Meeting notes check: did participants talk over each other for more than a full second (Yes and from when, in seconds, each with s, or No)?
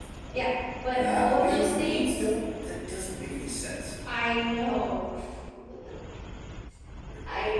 Yes, from 0.9 s